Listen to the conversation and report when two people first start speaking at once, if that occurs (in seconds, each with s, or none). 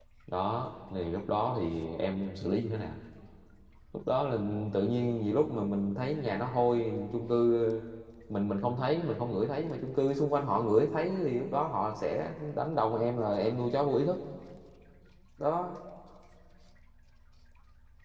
none